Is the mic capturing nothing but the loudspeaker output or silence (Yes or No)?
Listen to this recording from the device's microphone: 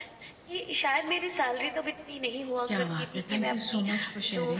No